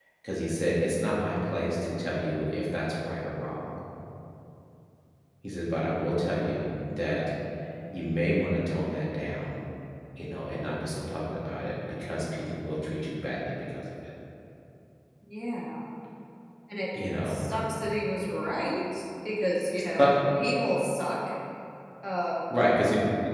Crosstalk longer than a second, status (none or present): none